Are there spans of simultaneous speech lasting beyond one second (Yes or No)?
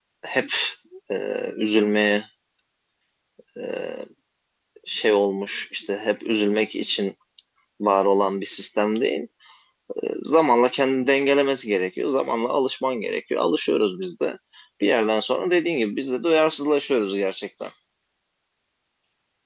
No